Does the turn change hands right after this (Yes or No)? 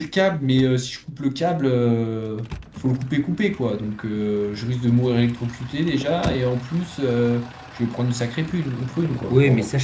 Yes